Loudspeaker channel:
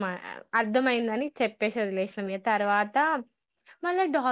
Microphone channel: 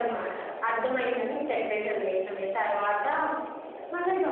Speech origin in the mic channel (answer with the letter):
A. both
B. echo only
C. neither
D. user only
B